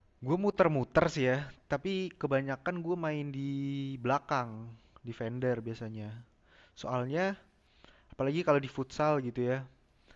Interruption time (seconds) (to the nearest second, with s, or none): none